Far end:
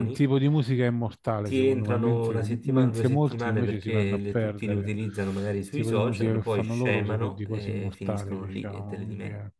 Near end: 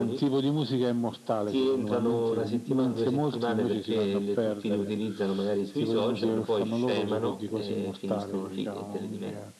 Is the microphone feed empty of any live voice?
Yes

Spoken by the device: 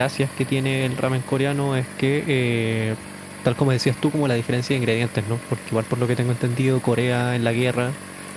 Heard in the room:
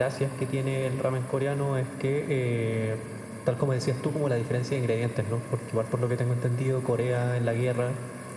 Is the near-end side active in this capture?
No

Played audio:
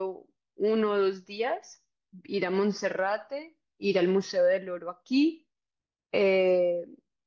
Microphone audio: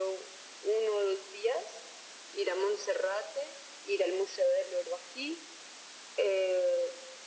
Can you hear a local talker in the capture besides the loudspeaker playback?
No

